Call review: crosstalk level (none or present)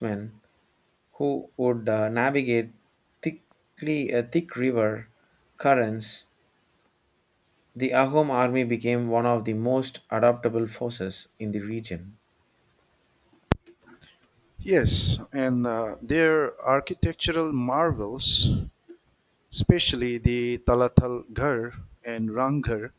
none